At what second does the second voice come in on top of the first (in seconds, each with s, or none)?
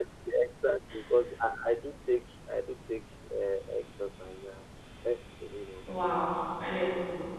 none